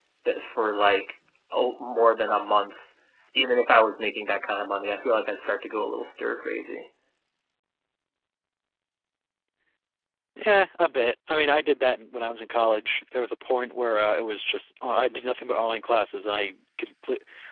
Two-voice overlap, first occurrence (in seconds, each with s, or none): none